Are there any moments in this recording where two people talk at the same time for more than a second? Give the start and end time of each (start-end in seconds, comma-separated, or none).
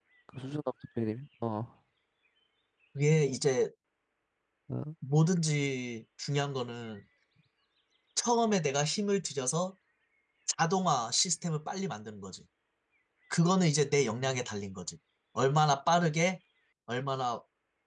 none